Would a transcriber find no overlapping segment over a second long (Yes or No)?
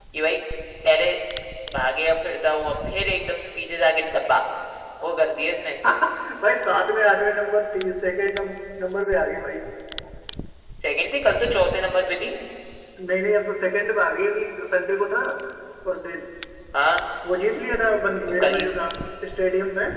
Yes